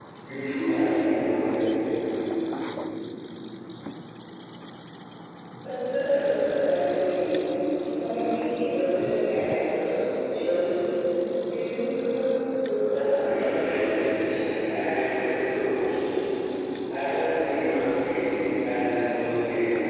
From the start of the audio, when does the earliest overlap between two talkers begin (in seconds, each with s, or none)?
12.9 s